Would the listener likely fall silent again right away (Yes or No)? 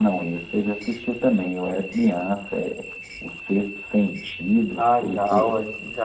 No